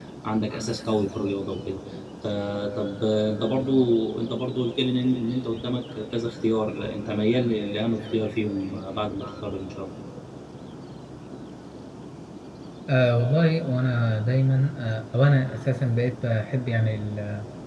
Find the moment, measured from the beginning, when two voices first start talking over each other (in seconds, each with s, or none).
none